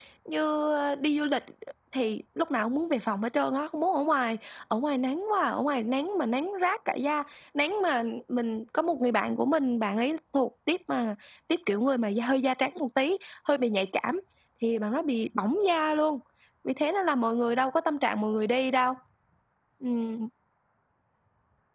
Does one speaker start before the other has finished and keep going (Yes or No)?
No